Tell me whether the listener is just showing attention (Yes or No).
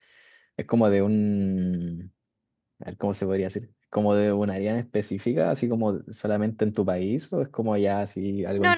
No